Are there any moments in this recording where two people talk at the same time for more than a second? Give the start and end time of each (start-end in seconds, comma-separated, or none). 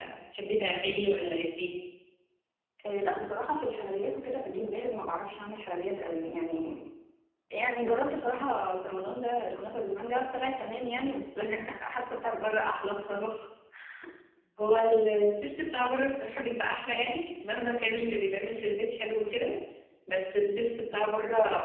none